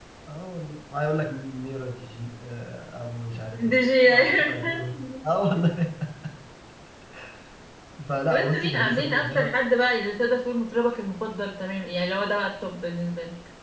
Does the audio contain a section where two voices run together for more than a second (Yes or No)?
Yes